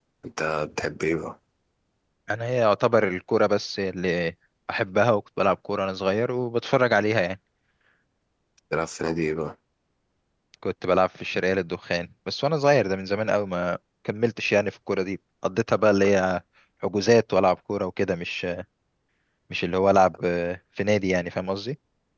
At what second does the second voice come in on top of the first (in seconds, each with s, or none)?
none